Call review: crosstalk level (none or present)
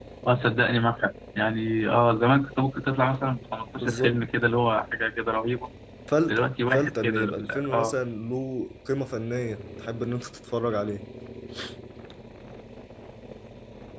present